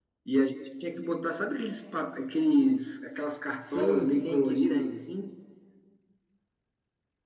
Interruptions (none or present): present